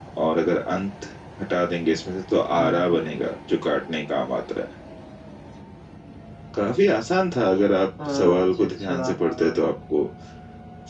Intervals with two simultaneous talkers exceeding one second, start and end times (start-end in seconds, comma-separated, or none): 8.1-9.5